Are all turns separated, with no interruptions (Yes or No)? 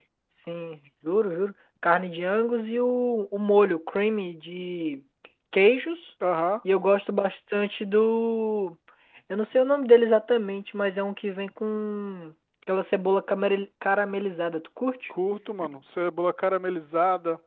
Yes